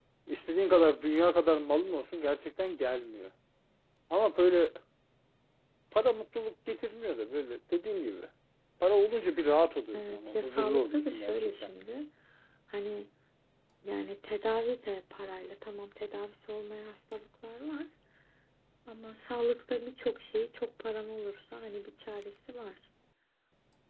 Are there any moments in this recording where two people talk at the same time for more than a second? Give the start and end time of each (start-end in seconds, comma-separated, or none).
9.9-11.7